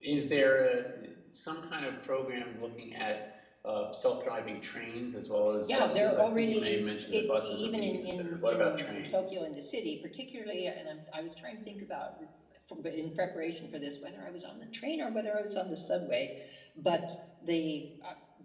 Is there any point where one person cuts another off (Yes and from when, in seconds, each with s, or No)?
Yes, from 5.7 s